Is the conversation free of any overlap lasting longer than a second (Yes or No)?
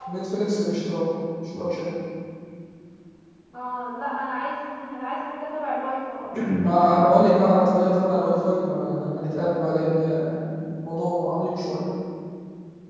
Yes